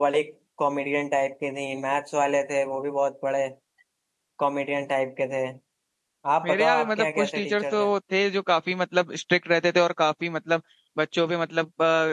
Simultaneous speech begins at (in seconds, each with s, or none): 6.4 s